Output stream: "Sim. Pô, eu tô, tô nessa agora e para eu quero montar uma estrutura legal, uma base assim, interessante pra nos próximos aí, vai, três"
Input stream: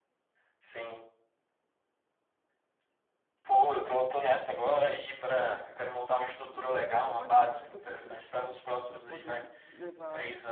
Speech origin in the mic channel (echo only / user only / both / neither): both